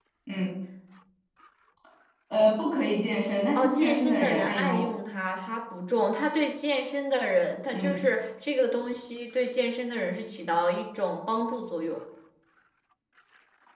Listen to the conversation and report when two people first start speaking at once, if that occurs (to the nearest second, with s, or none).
4 s